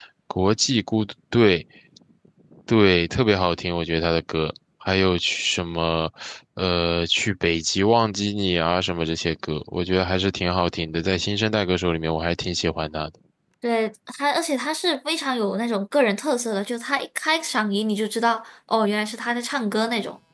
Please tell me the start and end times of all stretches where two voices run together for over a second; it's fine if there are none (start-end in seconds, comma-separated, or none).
none